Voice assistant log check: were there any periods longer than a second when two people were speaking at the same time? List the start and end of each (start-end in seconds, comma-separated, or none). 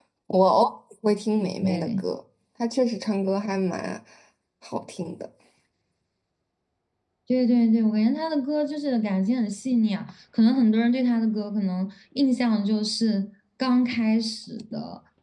none